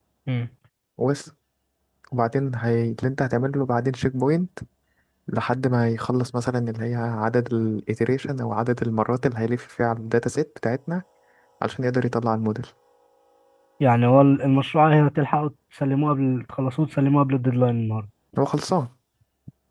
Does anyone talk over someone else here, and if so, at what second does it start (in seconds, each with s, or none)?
none